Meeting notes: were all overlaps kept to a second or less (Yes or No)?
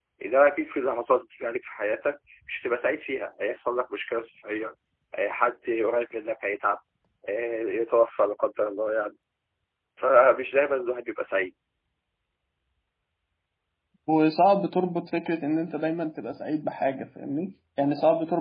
Yes